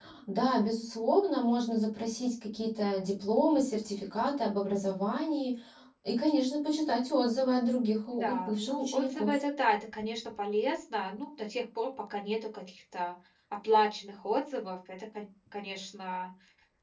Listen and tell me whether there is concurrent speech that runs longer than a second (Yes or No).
Yes